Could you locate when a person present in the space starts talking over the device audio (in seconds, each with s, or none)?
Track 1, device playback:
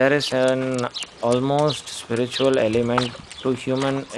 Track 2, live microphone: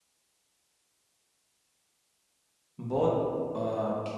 2.8 s